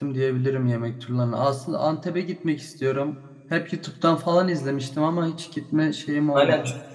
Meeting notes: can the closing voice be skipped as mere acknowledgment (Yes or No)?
No